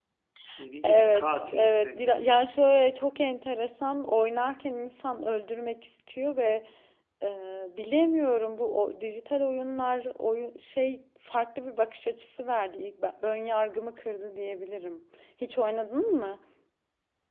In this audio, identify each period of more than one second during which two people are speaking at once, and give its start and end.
0.8-2.2

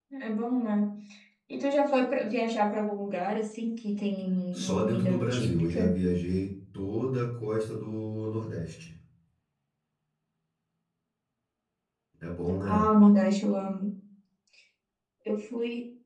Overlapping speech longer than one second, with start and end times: 4.5-5.9

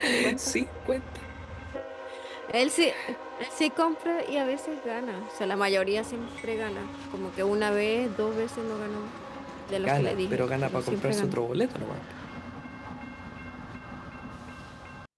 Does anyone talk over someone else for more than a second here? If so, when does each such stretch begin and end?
9.8-11.3

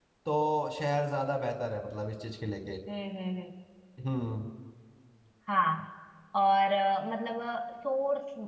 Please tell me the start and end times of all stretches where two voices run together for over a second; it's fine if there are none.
none

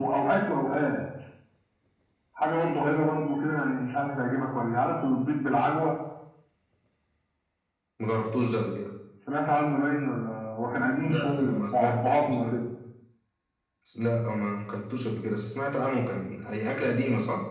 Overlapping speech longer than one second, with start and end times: 11.0-12.6

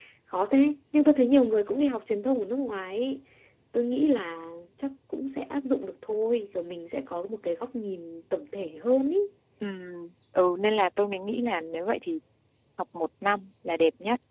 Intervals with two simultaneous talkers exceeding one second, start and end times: none

